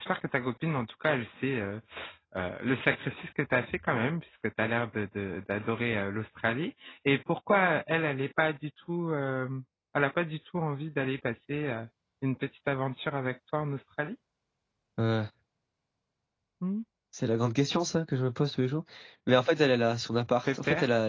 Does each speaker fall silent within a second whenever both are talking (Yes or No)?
Yes